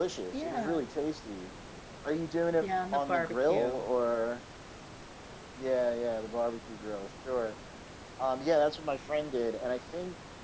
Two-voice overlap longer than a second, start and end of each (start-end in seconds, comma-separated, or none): 2.6-3.8